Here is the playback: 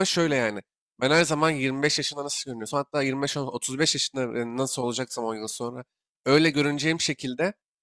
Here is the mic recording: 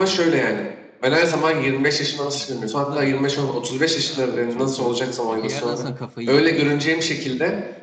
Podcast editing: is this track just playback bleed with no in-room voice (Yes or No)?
No